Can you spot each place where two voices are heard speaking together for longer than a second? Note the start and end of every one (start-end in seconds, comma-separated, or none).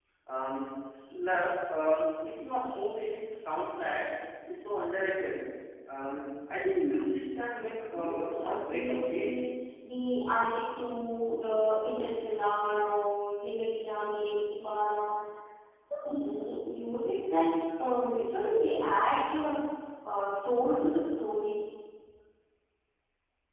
7.9-9.3